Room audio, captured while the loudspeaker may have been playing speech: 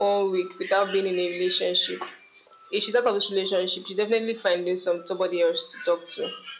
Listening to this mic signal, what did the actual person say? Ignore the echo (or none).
none